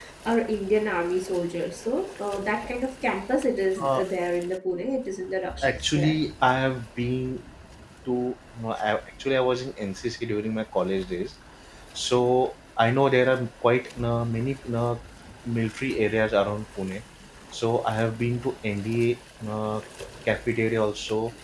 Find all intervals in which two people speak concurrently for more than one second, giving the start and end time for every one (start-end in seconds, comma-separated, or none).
none